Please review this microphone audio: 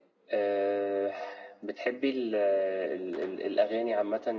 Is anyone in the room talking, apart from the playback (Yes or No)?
No